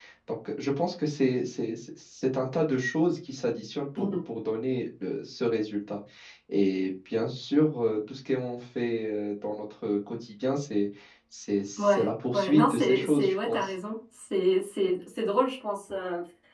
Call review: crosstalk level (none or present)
present